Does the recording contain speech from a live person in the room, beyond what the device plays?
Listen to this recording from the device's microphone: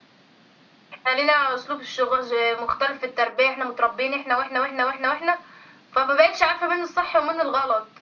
No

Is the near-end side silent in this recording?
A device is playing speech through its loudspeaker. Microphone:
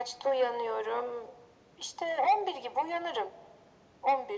Yes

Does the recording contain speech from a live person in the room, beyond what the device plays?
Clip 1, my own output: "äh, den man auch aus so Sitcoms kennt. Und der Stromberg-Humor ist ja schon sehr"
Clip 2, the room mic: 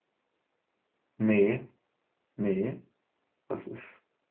Yes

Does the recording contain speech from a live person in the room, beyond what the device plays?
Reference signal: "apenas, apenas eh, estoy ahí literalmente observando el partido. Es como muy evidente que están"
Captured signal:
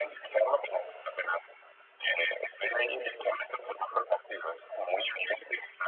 No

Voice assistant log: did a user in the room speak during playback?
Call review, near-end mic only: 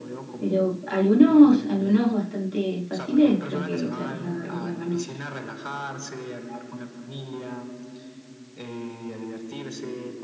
Yes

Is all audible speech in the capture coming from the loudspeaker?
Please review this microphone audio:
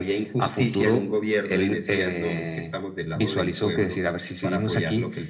Yes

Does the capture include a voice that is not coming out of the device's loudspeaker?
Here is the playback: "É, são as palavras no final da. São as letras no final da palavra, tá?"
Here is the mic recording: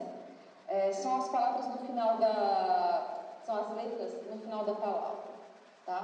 No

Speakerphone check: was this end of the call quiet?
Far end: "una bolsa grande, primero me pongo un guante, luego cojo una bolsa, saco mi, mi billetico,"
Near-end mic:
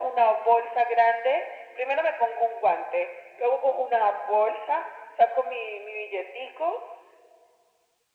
Yes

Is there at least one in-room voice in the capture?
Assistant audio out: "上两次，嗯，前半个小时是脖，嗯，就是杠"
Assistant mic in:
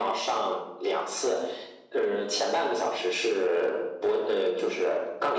No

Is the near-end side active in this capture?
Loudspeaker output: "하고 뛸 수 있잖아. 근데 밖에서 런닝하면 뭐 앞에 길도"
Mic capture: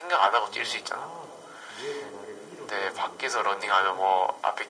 Yes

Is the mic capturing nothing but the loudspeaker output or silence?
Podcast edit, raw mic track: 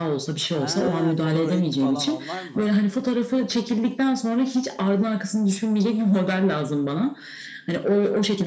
No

